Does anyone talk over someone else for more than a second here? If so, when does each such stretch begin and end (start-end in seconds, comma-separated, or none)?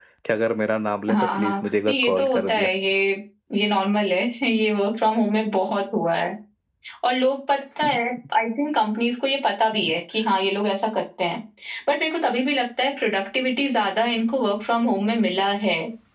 1.1-2.7